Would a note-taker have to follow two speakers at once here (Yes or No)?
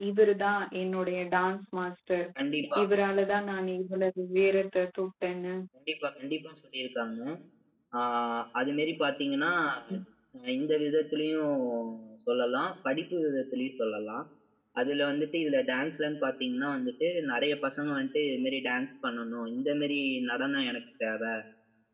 No